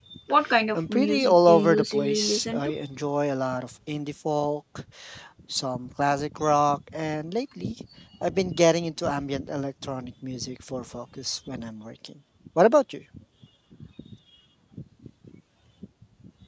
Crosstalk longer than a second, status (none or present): present